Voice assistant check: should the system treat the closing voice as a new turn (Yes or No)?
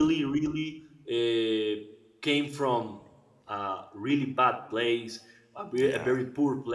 No